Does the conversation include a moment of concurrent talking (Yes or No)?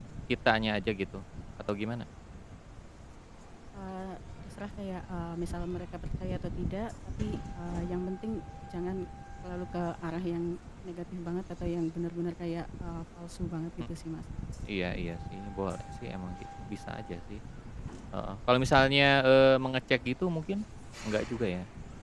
No